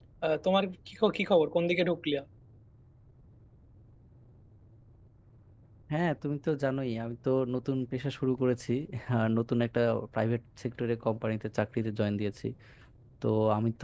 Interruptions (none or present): none